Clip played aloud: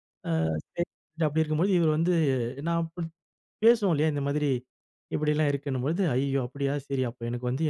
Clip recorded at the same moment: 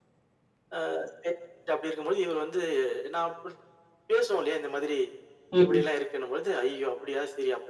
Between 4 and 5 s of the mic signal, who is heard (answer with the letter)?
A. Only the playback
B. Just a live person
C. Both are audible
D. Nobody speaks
A